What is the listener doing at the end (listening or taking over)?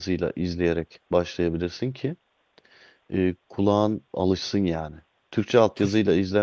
listening